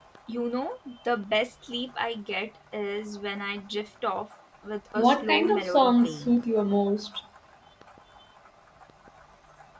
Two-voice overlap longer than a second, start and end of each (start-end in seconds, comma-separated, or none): 5.0-6.4